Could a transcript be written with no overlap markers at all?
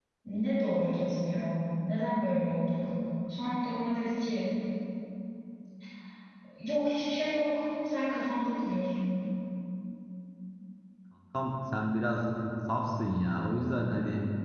Yes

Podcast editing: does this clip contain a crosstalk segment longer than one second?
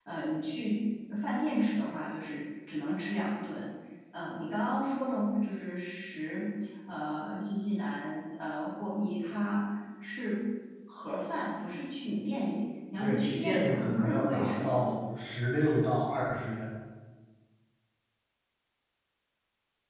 Yes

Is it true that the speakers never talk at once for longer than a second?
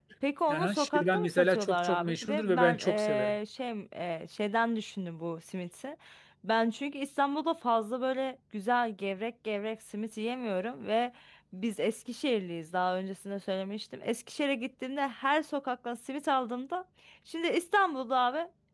No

